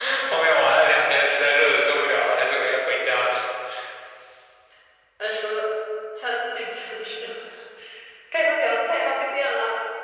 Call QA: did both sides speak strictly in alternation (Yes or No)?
Yes